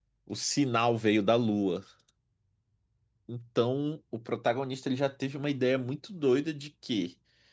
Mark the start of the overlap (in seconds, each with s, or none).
none